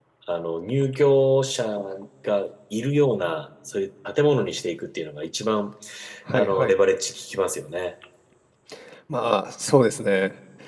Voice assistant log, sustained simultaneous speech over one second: none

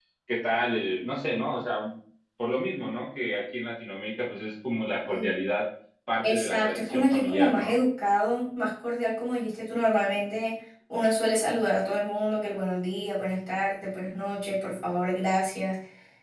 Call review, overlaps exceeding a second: present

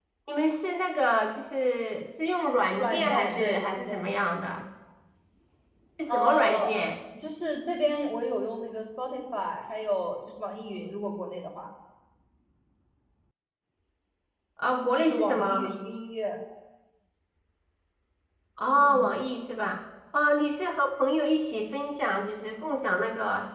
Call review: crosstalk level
present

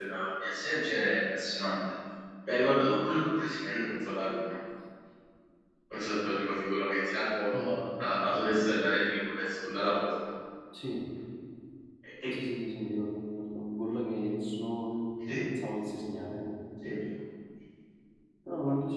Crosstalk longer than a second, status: none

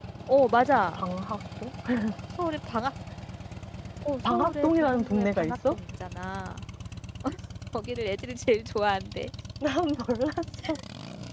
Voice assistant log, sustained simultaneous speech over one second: present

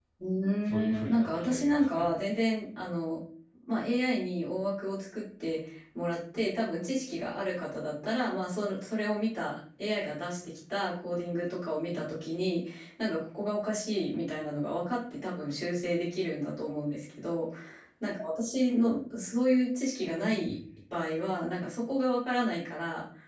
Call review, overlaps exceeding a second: present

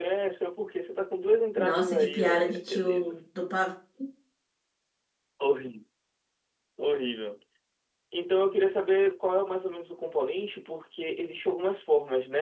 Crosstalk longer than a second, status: present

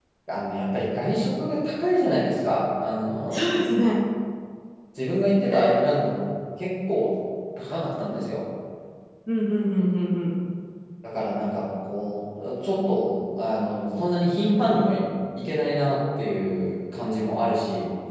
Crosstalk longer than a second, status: none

